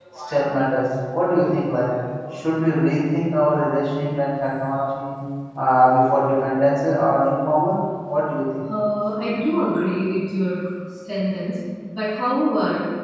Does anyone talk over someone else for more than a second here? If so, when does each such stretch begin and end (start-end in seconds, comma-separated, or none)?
none